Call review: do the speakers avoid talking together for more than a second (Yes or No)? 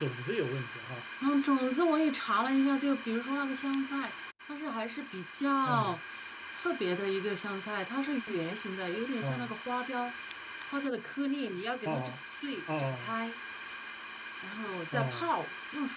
Yes